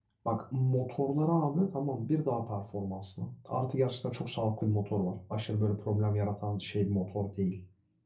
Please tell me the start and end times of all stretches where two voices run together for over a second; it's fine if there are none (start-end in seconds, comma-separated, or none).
none